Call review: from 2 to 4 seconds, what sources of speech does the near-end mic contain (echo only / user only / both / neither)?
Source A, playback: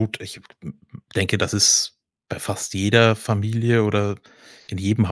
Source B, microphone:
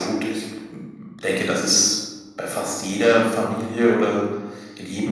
echo only